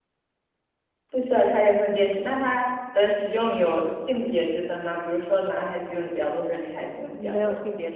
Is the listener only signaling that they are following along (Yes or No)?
No